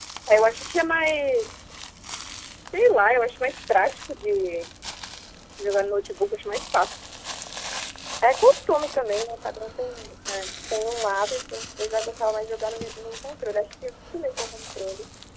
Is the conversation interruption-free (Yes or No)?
Yes